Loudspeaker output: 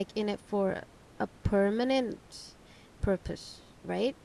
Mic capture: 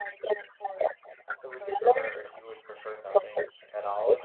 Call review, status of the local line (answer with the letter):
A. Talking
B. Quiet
A